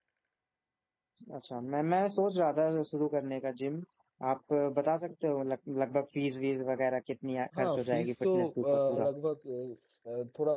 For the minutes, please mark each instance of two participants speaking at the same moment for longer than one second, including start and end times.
7.6-9.1

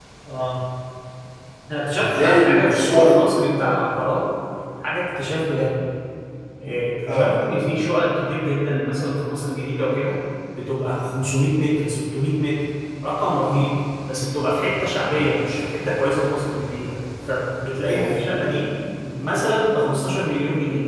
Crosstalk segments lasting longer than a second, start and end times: 2.0-3.2

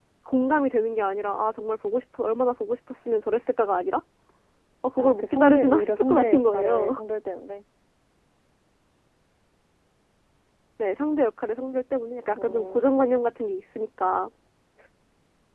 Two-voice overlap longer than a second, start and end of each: 5.0-7.0

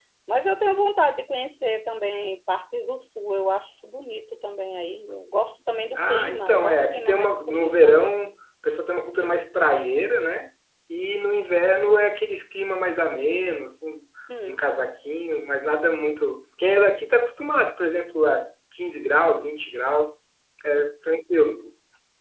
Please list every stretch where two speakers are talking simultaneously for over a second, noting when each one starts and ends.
6.0-8.2

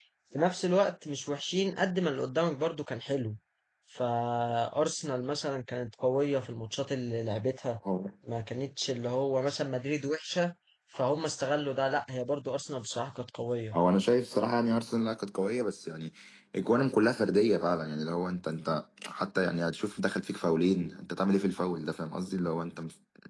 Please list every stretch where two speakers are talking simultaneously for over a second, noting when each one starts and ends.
none

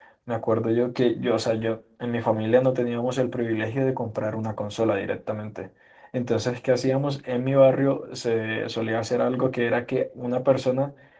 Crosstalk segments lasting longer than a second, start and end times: none

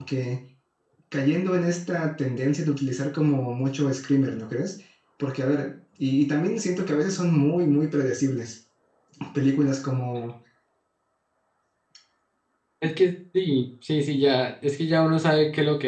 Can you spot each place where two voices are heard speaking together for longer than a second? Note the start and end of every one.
none

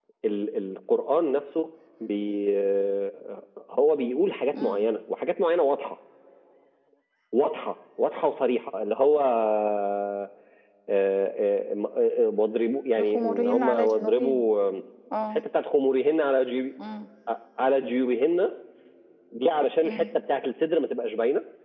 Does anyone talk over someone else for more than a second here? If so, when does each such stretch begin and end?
12.9-14.4

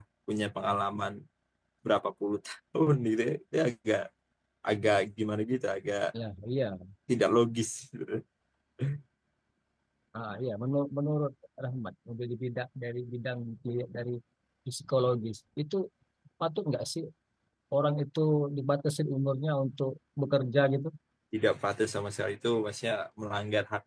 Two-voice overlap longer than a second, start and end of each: none

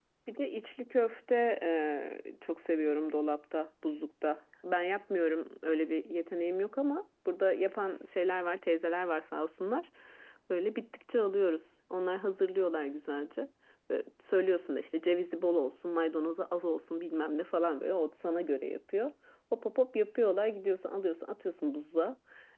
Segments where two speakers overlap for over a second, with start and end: none

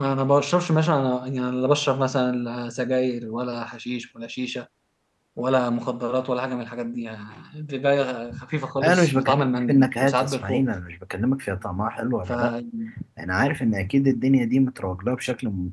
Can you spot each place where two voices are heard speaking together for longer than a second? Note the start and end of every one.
8.8-10.7

